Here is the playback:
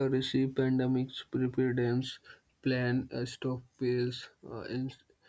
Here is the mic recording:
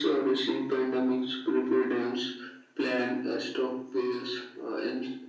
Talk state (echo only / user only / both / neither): echo only